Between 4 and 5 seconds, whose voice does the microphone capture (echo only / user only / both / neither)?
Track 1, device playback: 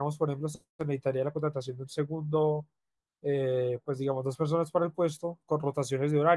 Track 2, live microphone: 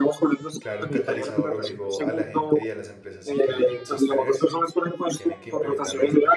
both